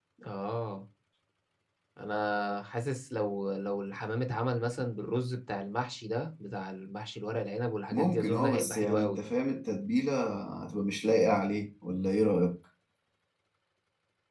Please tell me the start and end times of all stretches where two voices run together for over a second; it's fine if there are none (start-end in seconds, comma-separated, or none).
7.9-9.2